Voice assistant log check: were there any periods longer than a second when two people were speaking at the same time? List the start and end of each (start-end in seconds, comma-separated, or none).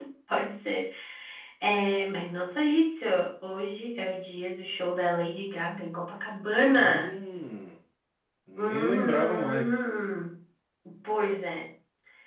8.6-9.8